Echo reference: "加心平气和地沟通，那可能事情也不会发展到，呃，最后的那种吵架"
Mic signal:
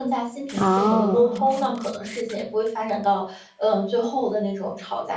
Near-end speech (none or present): present